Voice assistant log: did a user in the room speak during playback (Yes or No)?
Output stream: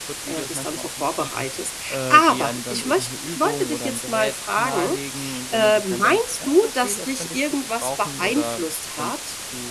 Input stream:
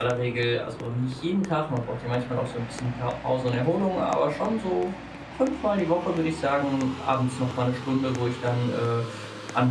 Yes